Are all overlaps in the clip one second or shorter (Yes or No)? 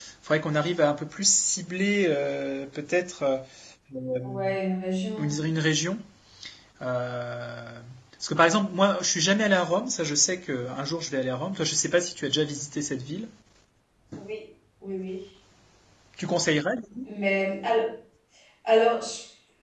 Yes